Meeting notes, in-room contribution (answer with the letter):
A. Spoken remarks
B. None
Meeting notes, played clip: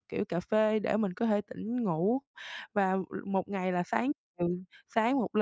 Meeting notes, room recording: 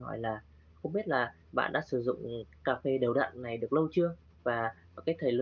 A